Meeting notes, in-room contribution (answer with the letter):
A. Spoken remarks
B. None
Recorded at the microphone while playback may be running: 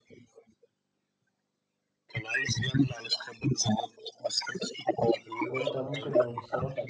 A